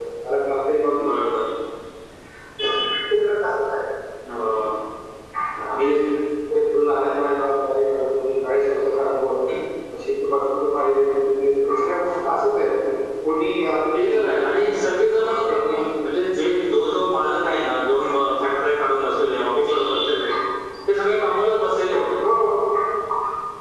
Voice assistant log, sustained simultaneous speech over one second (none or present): none